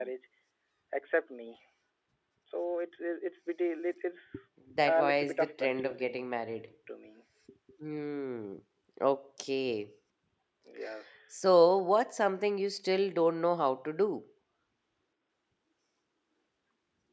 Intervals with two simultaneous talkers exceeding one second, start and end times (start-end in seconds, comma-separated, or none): 4.9-6.2